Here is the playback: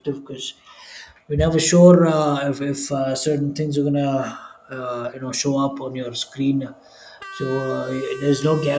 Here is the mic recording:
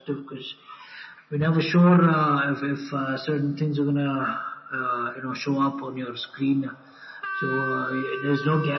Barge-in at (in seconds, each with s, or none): none